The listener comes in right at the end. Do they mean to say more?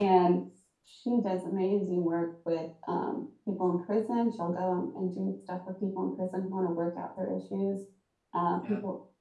No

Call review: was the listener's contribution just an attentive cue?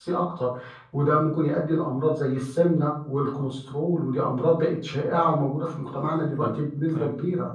No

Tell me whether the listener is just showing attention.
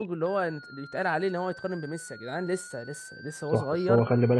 No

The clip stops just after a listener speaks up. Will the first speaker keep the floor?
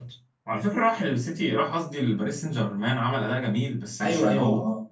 No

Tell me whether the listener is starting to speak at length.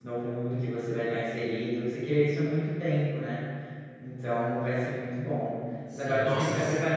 No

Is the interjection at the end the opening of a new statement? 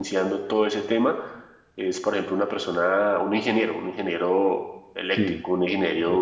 No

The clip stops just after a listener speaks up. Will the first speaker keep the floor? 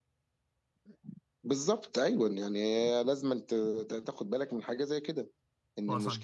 Yes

